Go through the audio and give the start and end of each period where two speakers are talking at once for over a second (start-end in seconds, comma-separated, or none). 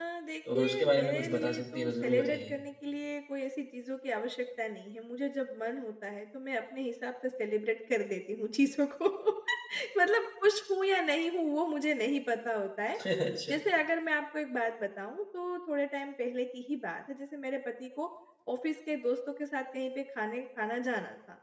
0.6-2.6